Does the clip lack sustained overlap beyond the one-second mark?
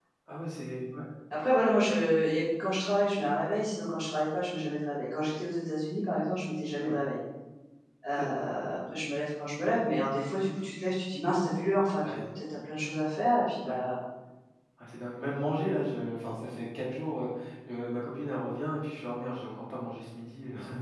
Yes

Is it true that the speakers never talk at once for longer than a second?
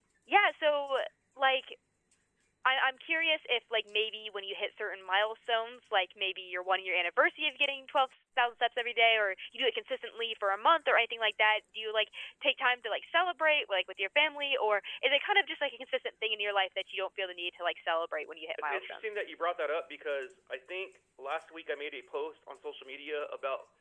Yes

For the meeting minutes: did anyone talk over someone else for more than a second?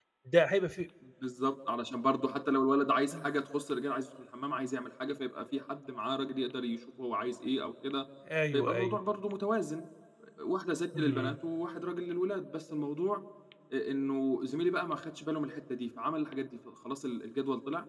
No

